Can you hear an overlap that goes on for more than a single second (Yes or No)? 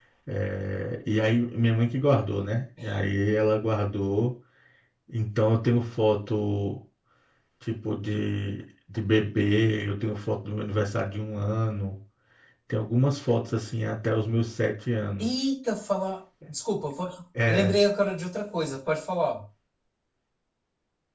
No